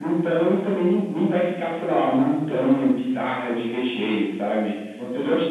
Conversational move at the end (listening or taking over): listening